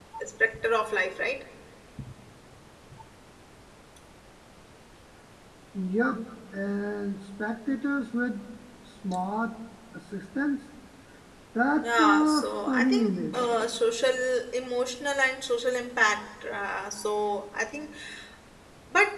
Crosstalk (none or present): present